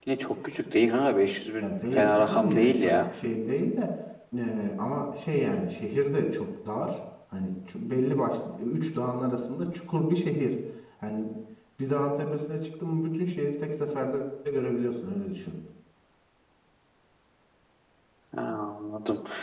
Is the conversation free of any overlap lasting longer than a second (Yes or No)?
No